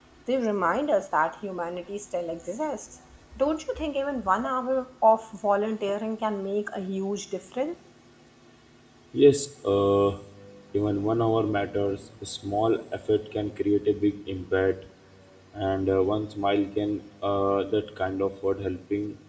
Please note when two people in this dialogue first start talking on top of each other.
none

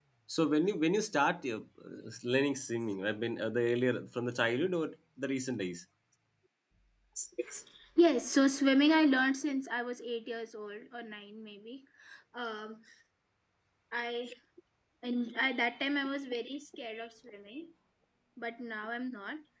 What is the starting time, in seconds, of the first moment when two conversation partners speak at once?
none

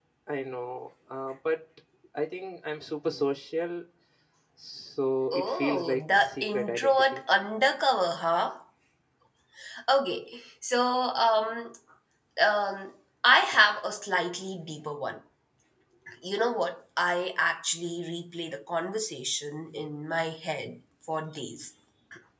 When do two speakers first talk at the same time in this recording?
5.3 s

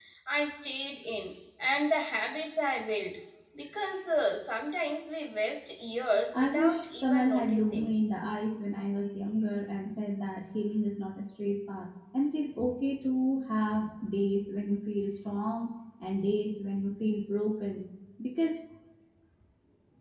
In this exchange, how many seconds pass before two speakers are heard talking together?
6.3 s

